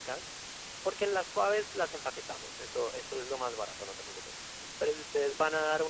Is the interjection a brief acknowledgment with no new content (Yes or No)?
Yes